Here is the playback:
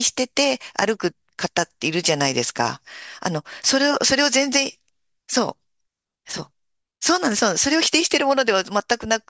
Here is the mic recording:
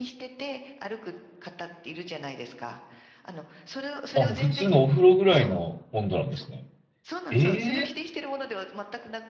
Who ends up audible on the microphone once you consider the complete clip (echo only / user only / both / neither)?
both